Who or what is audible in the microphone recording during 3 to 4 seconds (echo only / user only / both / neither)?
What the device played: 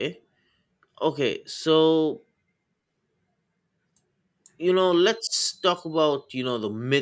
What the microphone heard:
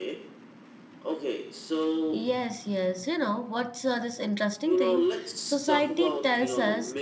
user only